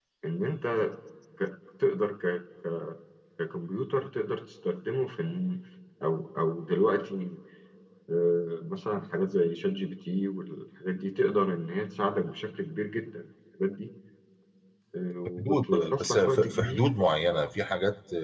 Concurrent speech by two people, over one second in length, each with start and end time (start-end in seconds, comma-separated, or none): 15.4-16.8